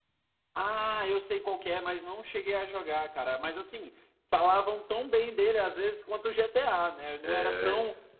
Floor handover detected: No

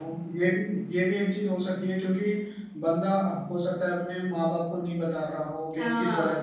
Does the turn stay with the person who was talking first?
Yes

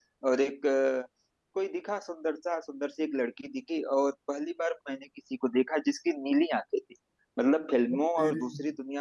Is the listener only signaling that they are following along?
Yes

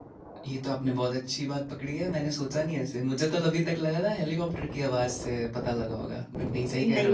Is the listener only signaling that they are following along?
No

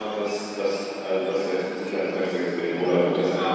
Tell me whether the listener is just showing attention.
No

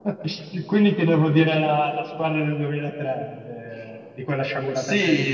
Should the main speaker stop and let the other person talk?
Yes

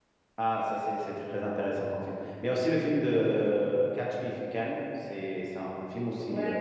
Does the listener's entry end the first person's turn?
Yes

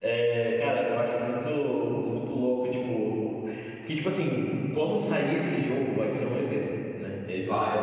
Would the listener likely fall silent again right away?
Yes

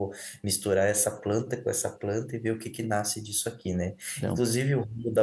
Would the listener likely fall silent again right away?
Yes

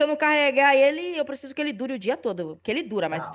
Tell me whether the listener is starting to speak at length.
Yes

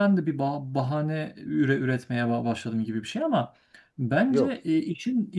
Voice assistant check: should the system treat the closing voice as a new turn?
No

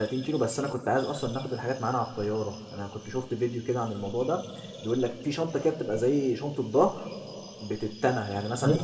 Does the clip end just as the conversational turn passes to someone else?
No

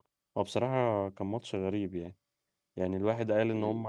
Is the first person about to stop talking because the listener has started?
No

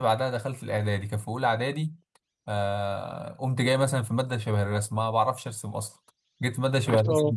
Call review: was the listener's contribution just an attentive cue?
Yes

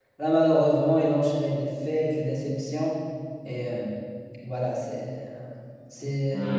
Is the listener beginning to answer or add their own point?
Yes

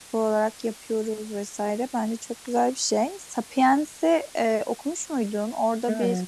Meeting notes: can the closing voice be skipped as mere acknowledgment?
Yes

